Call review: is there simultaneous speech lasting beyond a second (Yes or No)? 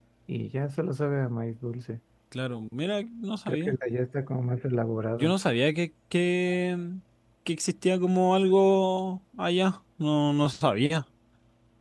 No